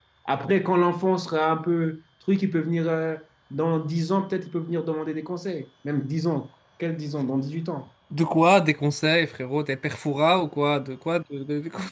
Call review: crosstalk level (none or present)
none